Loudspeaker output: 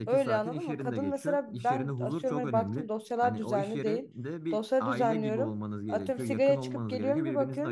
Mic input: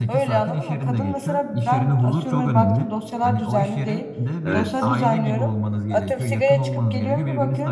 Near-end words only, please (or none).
Evet,